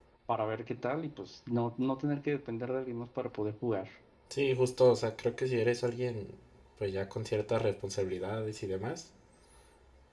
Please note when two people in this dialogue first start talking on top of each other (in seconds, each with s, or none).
none